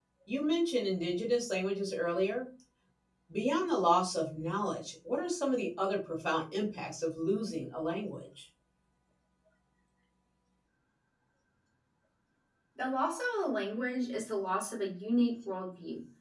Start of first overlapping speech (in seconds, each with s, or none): none